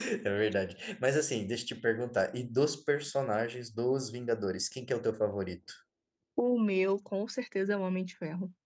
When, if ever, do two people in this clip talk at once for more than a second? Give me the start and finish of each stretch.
none

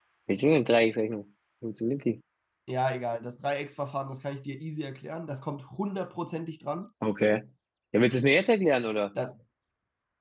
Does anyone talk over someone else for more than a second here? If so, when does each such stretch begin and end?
none

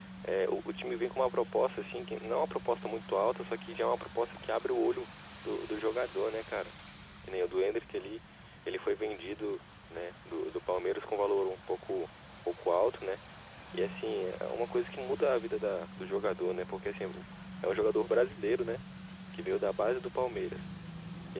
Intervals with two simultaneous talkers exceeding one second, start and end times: none

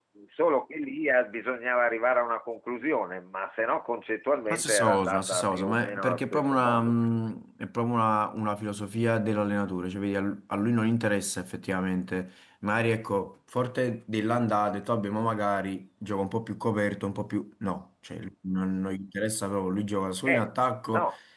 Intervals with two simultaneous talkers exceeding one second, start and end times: 4.5-6.9

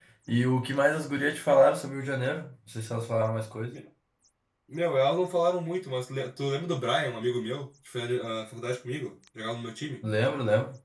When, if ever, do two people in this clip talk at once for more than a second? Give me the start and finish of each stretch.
none

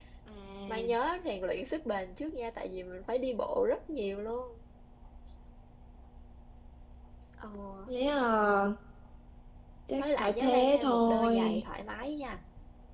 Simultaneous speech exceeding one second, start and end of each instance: 10.0-11.4

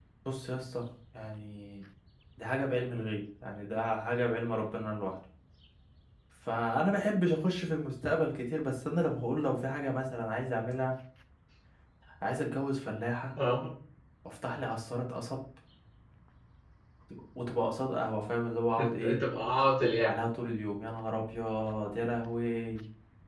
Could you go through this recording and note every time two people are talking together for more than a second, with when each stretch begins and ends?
none

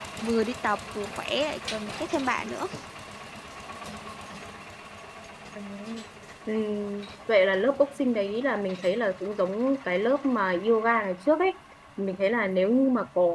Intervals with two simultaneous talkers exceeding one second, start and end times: none

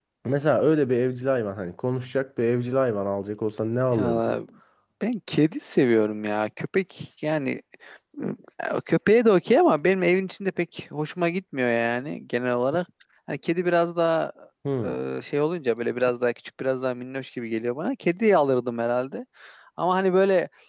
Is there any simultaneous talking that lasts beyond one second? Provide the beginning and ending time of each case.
none

